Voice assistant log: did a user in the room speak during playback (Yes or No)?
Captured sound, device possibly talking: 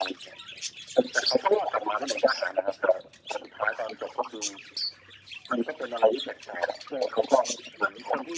No